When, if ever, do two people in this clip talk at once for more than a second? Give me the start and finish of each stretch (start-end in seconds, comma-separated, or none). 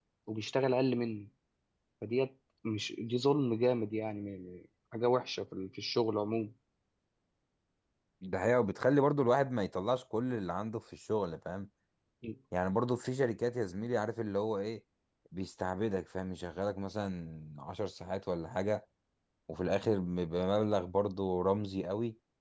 none